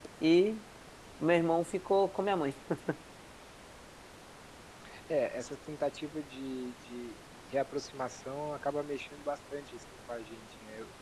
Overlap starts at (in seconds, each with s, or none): none